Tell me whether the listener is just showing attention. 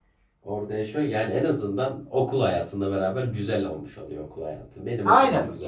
No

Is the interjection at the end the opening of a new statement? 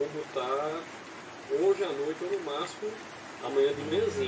No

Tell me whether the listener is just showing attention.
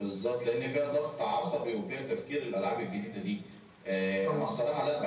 Yes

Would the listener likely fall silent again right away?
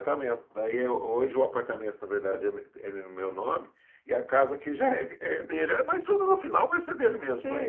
No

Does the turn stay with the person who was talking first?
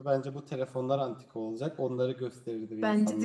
No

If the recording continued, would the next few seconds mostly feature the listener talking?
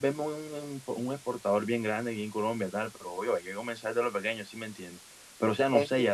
No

